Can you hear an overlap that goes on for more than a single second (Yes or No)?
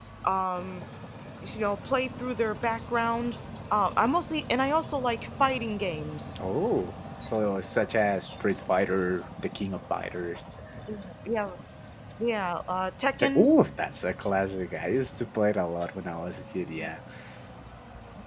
No